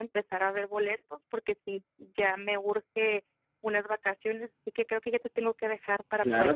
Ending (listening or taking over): taking over